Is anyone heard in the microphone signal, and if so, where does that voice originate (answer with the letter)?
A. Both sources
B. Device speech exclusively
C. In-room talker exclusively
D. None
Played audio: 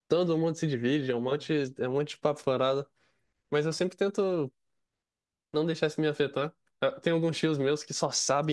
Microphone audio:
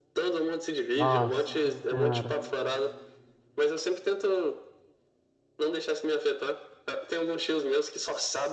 A